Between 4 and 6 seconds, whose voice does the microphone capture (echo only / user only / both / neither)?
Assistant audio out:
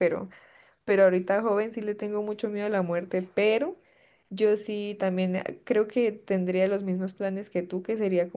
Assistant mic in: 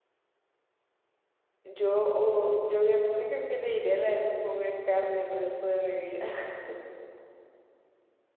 user only